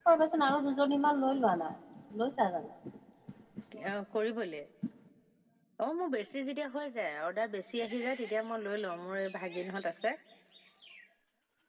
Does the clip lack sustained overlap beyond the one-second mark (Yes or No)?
Yes